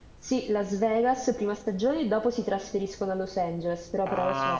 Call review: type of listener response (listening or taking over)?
taking over